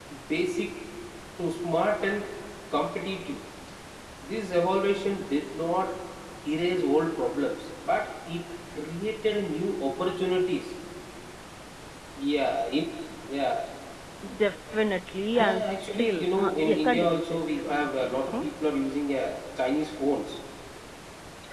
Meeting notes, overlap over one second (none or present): present